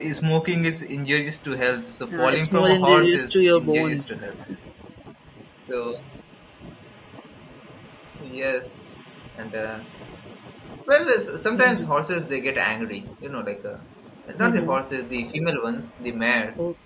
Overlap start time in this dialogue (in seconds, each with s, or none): 2.1 s